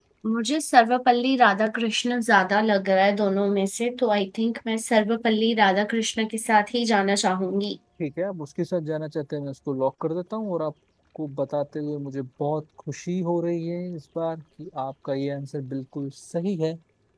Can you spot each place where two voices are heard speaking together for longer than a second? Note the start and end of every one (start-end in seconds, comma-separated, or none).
none